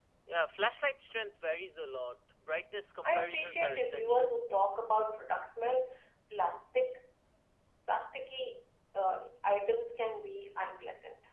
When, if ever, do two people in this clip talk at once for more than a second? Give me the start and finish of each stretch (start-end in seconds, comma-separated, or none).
3.0-4.4